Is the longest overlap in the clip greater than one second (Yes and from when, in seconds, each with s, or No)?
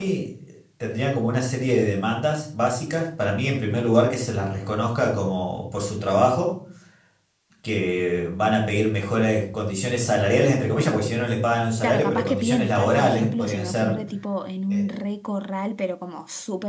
Yes, from 11.8 s